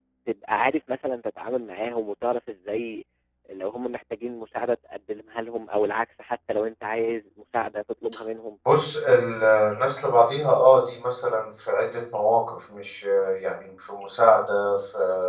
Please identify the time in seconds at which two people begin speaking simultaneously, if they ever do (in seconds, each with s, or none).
none